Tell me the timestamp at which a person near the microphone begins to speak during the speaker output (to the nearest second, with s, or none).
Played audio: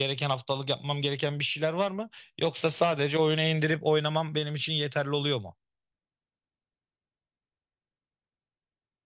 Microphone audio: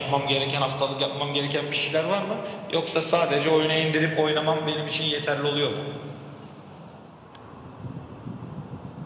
none